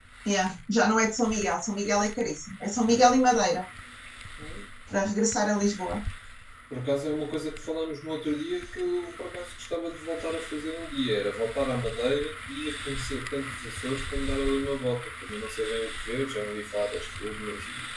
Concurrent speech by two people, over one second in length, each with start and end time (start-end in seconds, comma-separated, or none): none